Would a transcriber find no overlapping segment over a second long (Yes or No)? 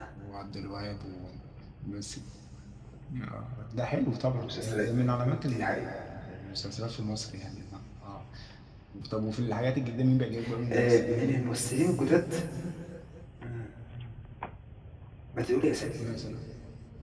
No